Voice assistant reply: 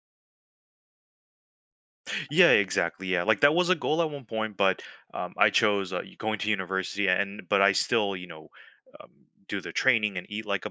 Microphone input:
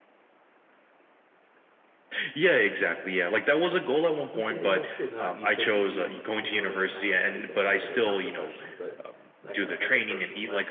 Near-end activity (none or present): present